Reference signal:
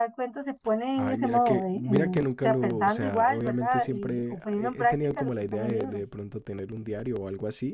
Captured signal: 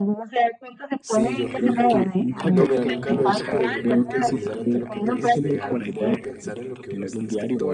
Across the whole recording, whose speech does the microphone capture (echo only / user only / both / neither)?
both